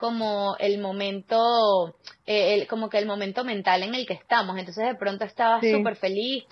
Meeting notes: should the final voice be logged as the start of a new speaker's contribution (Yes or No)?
No